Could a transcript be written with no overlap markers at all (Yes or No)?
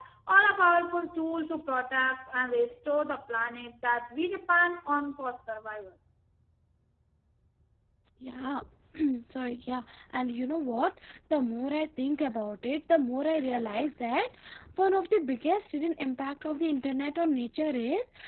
Yes